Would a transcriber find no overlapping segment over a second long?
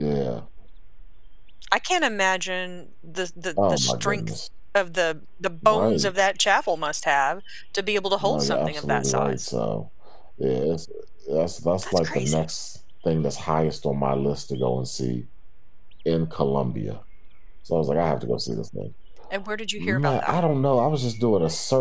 No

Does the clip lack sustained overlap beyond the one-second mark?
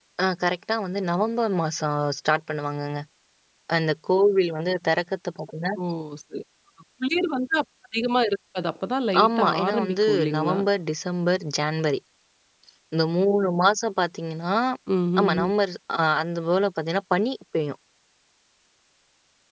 No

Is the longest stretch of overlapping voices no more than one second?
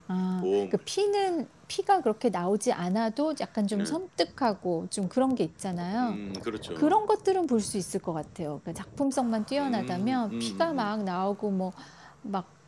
No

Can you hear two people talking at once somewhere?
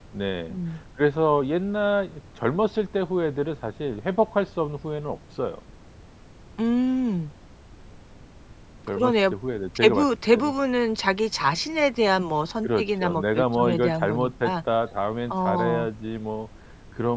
Yes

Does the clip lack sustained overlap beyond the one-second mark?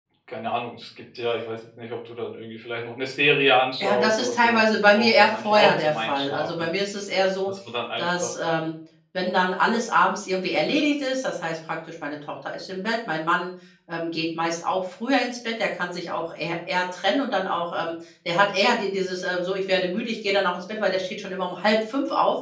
No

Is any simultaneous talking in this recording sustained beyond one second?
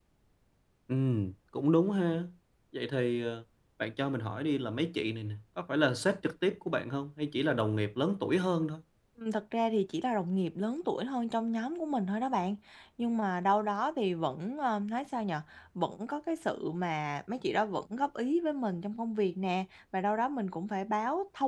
No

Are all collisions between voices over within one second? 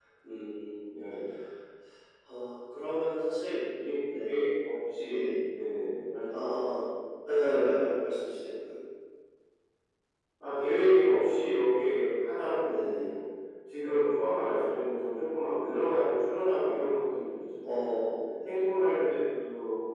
Yes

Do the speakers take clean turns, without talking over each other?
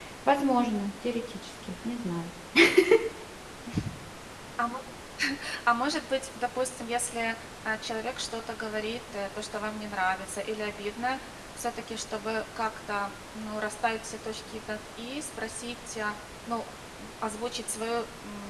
Yes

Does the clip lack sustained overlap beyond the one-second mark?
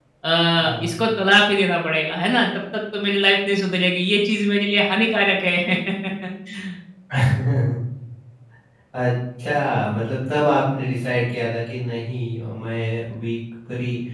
Yes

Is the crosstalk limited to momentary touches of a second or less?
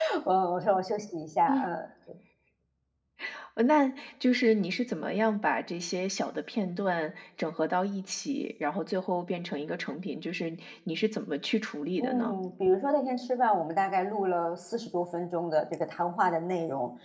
Yes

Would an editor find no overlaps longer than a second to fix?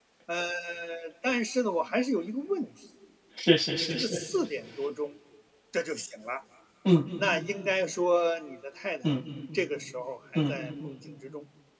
Yes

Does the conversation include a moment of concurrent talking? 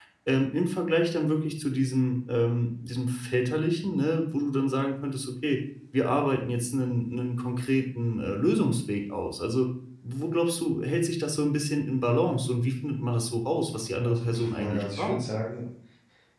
Yes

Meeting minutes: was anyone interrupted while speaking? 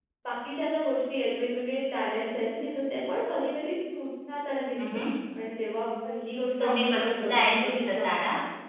Yes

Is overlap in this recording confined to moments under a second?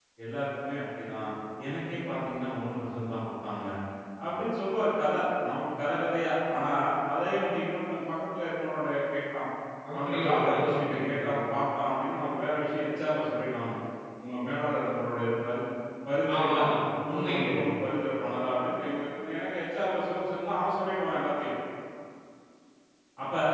No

